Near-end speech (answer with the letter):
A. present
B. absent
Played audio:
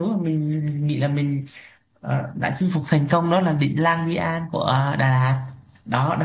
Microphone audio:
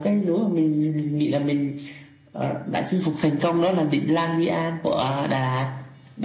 B